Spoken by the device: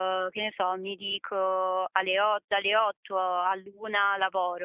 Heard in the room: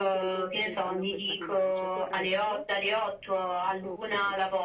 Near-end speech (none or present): present